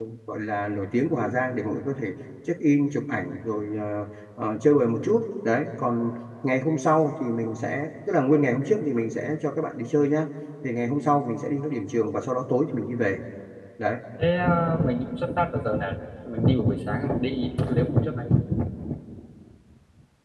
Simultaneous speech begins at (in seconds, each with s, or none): none